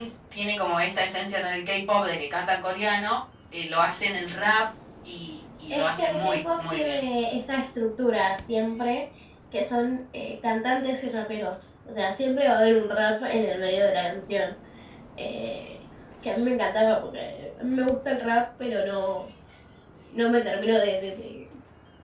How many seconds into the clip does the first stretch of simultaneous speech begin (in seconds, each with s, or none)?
5.7 s